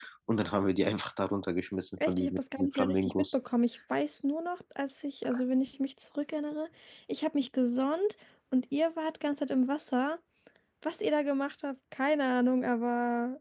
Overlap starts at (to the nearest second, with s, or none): 2 s